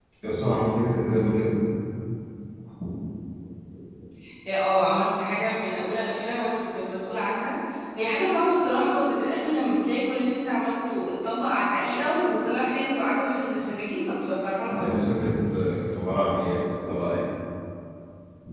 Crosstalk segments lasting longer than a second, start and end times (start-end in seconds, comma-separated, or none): none